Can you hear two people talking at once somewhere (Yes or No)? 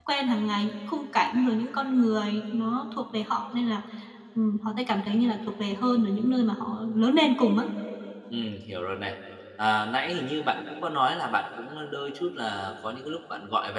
No